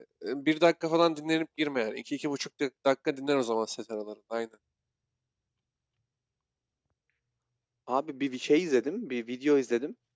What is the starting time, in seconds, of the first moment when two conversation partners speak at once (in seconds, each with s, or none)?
none